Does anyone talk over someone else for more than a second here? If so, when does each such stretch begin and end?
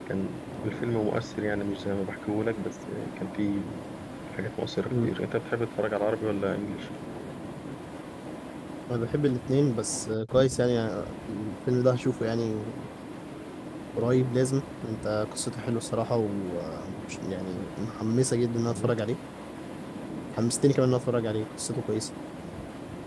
none

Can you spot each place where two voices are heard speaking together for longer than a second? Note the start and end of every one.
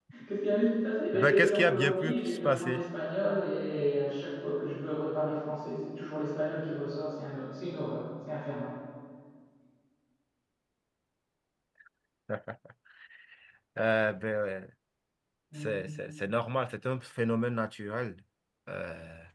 1.1-2.8

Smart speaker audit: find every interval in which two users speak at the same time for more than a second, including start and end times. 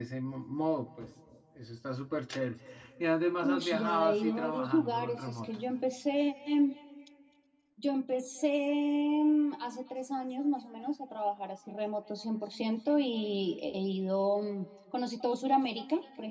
3.5-5.6

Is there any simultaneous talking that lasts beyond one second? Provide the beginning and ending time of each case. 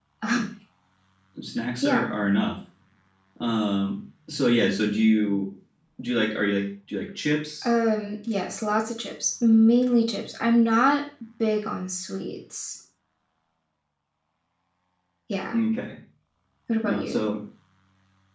none

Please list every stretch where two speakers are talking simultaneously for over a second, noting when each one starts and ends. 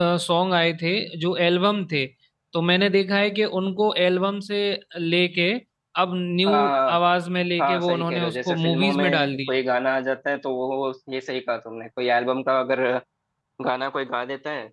7.6-9.5

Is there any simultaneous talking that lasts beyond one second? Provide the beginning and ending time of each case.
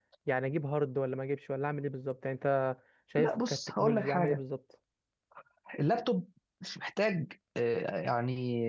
3.2-4.4

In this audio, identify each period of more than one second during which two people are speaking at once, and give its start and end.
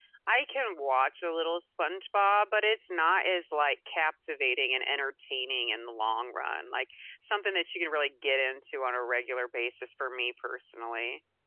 none

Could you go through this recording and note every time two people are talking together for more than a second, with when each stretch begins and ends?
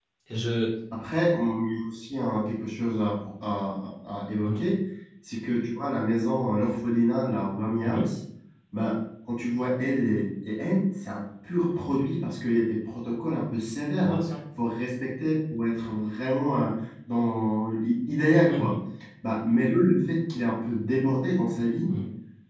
none

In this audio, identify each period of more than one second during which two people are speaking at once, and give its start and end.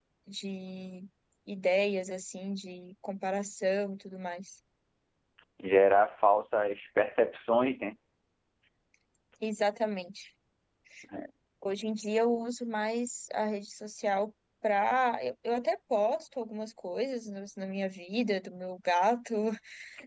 none

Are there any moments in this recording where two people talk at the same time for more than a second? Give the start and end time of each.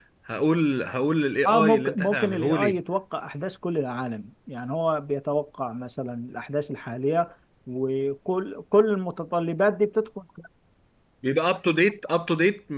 1.4-2.8

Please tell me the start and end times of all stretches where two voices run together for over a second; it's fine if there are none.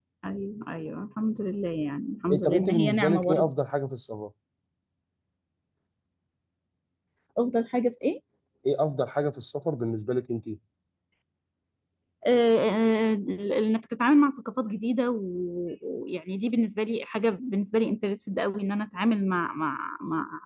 2.3-3.5

